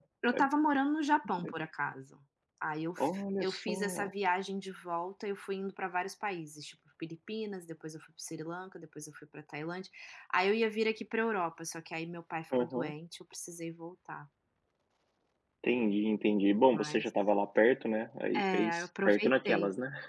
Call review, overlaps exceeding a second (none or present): present